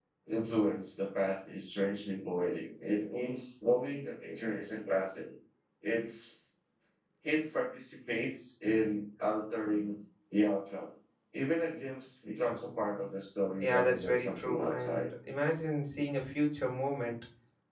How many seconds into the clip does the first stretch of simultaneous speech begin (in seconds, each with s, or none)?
13.6 s